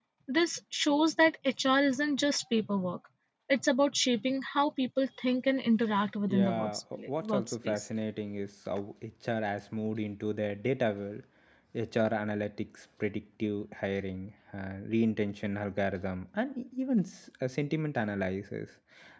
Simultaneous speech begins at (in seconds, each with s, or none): 6.3 s